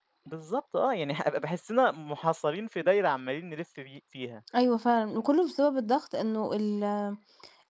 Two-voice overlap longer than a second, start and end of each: none

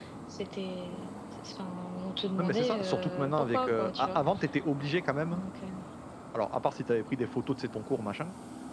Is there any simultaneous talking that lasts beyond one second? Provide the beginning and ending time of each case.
2.4-4.2

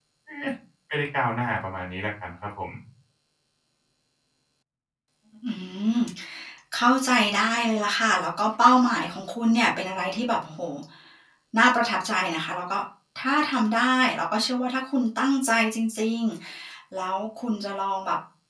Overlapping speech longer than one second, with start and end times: none

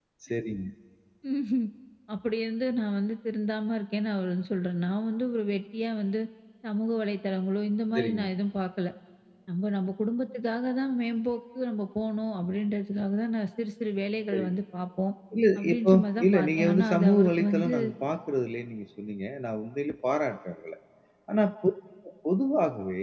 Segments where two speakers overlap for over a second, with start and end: 15.6-17.7

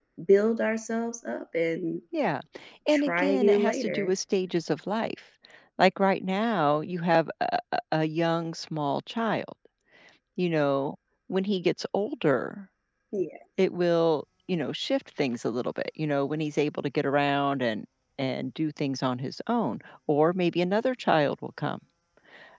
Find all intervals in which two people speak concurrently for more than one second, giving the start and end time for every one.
2.9-4.1

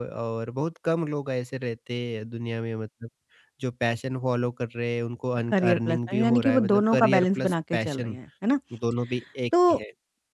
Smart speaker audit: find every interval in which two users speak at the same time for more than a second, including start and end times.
5.5-8.2

